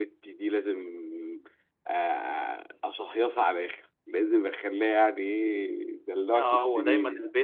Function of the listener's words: taking over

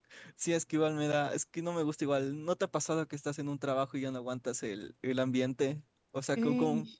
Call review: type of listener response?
listening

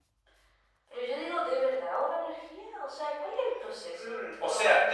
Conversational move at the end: taking over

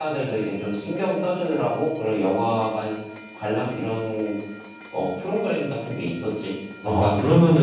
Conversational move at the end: taking over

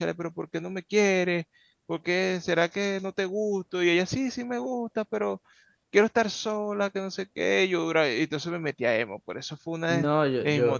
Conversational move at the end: taking over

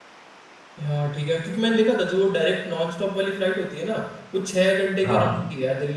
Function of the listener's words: listening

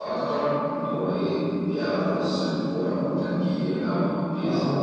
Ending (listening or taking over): taking over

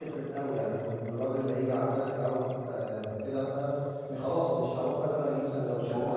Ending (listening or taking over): listening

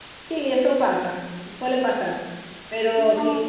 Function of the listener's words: listening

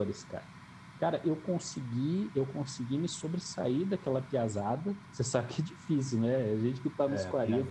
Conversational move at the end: taking over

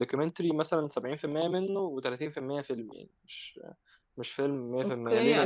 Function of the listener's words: taking over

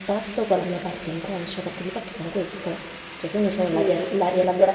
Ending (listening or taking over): listening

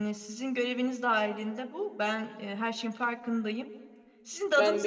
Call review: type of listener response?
listening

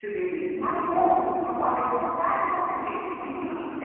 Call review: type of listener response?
listening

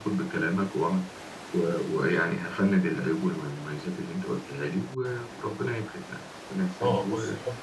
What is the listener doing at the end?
taking over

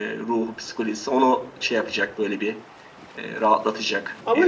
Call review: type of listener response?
taking over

